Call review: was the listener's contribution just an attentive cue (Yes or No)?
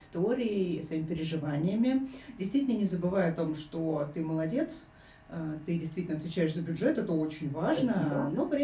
Yes